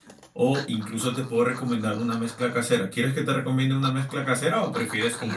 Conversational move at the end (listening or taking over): taking over